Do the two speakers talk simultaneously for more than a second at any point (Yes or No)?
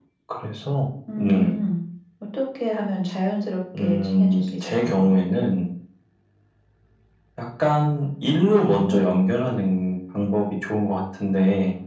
Yes